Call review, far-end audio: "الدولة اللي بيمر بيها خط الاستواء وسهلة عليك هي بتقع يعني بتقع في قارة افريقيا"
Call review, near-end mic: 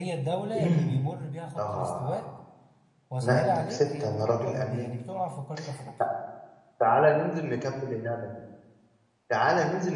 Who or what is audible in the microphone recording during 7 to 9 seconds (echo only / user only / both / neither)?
user only